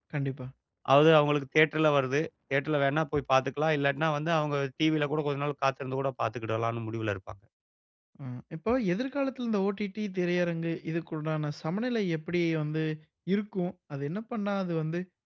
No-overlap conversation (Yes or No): Yes